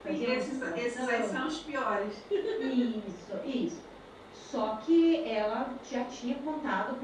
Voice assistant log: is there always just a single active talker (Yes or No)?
No